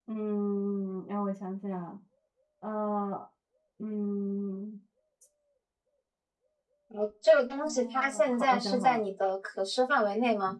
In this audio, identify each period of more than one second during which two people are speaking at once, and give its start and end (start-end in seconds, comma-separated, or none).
7.6-9.0